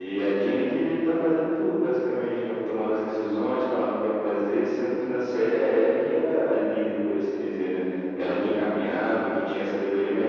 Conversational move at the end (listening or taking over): listening